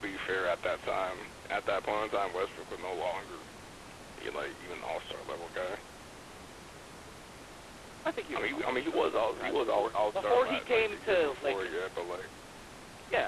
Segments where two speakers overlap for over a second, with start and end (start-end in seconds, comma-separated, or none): 8.3-11.9